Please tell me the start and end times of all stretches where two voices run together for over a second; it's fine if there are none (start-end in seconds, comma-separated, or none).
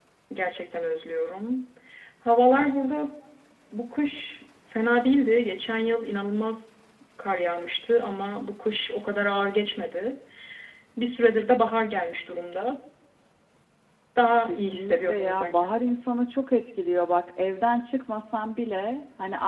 14.5-15.9